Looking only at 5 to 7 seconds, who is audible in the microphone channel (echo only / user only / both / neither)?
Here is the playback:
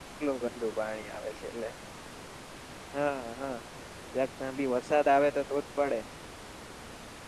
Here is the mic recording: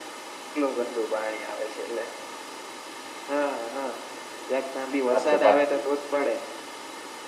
both